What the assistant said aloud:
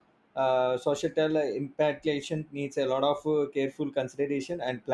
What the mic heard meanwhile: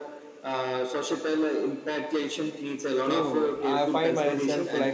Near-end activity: present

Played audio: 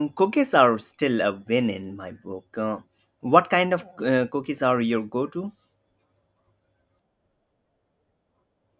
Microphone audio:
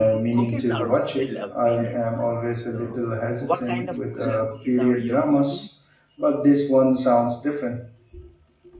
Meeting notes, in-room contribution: present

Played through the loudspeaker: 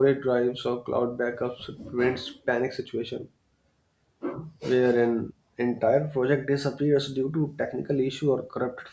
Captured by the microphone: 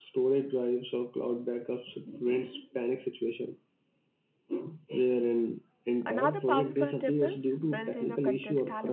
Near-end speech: present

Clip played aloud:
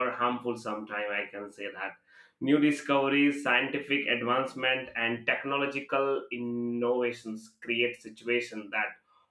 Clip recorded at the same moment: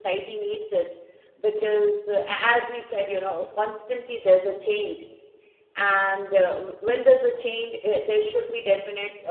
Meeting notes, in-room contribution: present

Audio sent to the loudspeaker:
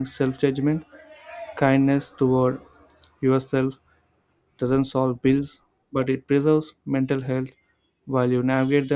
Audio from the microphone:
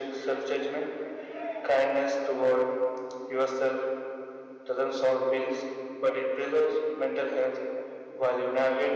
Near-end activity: none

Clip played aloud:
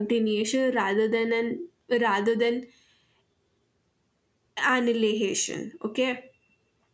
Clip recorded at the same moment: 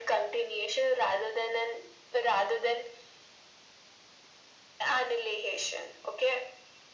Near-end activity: none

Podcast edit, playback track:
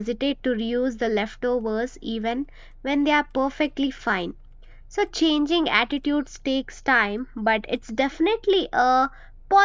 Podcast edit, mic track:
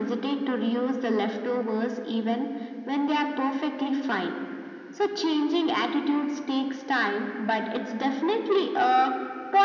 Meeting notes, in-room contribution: none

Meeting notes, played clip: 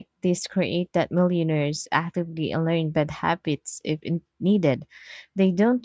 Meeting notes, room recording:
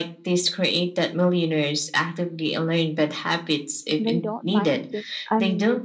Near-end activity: present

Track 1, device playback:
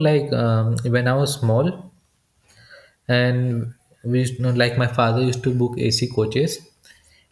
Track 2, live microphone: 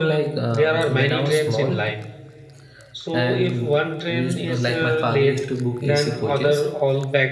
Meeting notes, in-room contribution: present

